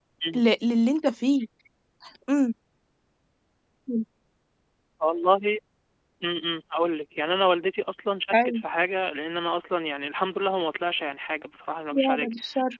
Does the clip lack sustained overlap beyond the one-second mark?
Yes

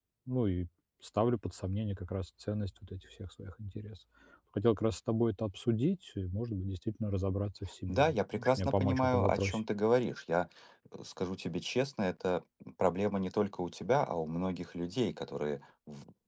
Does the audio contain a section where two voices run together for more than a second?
Yes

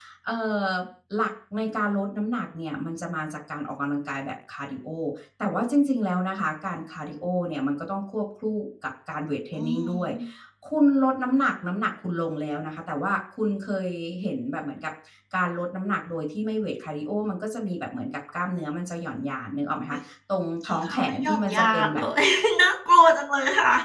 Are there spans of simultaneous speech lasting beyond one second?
Yes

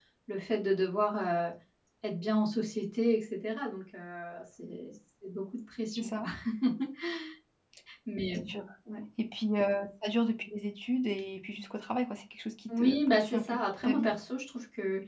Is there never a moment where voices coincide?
No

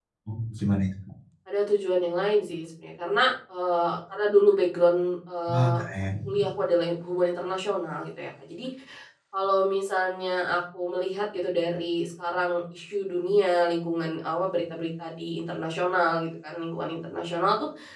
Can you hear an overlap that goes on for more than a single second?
No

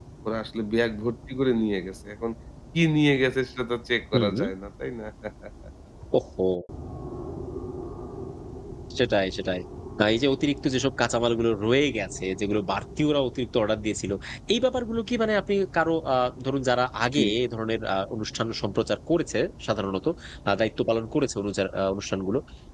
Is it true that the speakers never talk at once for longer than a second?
Yes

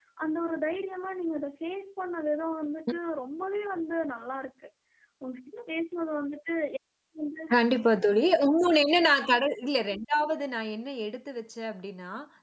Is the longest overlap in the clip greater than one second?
No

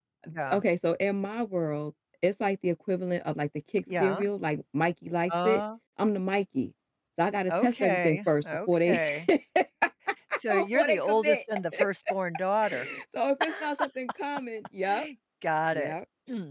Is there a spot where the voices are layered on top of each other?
Yes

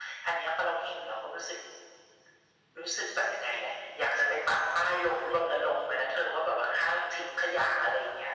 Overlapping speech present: No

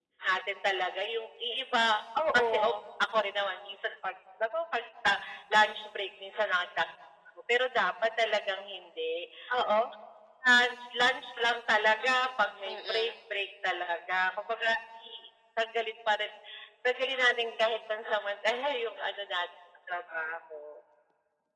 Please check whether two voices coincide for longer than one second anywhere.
No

